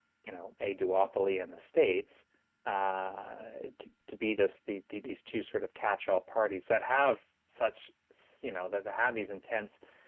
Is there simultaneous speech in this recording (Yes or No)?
No